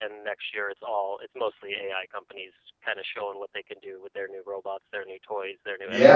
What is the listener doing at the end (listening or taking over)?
taking over